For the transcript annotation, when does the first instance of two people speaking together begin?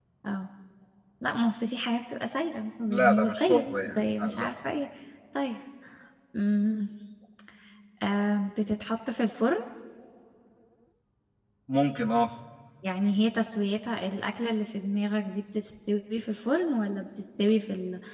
2.9 s

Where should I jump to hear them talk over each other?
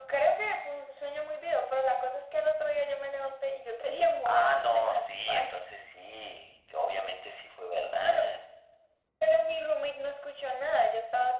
4.2 s

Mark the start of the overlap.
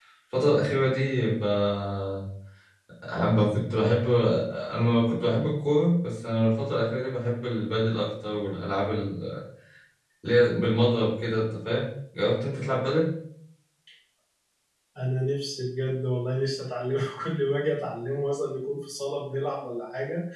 none

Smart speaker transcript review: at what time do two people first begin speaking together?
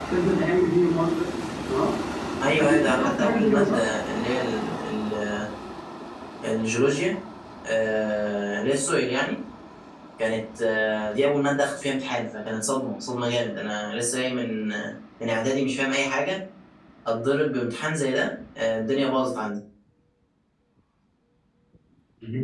2.6 s

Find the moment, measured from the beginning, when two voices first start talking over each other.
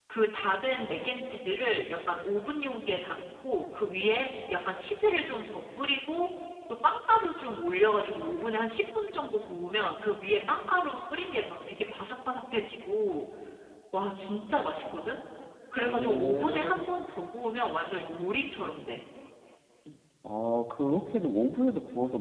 15.8 s

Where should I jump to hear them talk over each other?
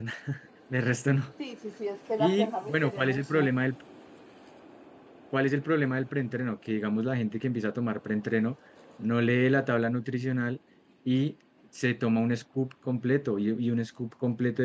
2.2 s

